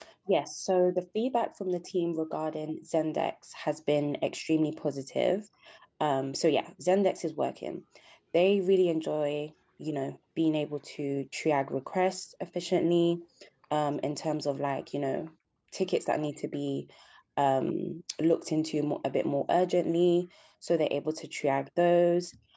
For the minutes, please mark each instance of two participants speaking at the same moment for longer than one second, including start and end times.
none

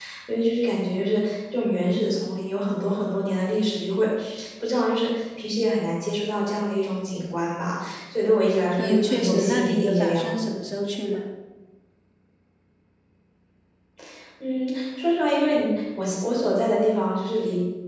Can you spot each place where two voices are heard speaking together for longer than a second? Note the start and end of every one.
8.8-10.5

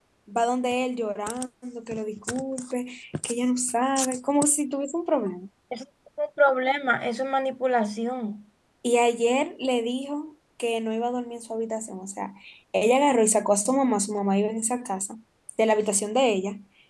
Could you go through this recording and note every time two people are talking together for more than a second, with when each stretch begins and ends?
none

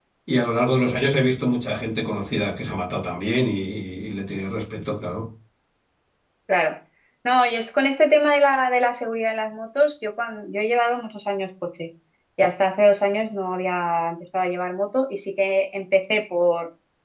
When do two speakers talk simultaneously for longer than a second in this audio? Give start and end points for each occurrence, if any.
none

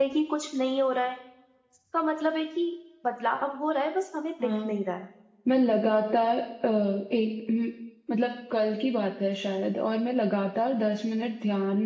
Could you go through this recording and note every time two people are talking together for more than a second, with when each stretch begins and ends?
none

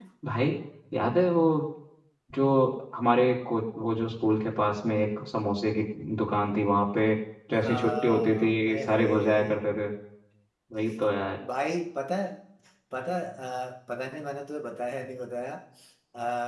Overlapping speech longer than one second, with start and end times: 7.6-9.7

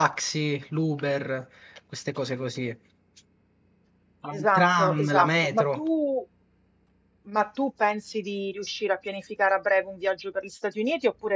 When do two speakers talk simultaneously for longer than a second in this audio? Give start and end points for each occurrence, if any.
4.3-5.8

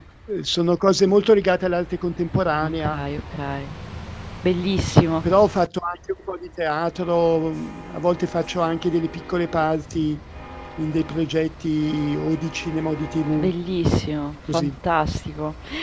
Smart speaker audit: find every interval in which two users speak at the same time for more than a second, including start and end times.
none

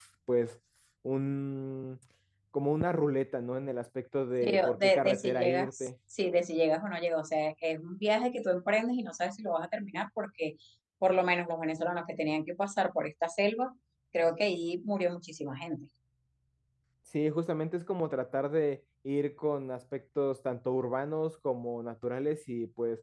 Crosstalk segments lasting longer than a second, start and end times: 4.4-5.9

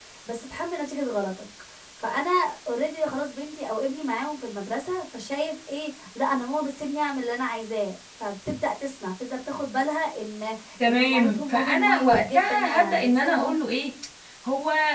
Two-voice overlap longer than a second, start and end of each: 10.9-13.5

